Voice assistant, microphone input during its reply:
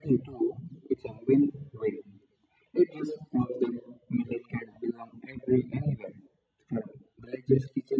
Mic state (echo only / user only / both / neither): echo only